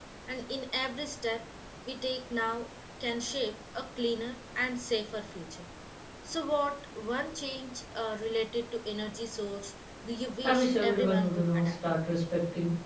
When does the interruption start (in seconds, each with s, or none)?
10.4 s